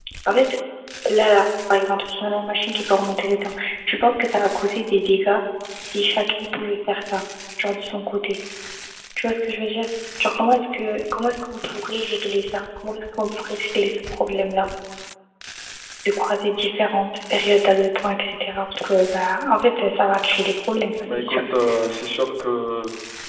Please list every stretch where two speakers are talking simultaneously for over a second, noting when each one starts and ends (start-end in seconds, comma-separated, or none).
none